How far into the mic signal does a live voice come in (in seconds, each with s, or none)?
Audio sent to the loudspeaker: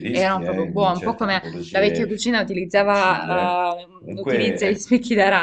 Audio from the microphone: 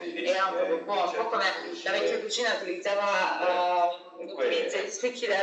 none